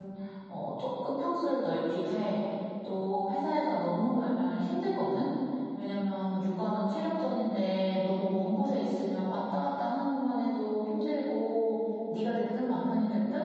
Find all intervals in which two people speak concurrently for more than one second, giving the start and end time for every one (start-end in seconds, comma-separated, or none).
none